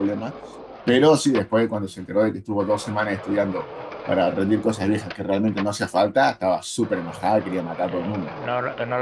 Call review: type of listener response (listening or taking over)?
taking over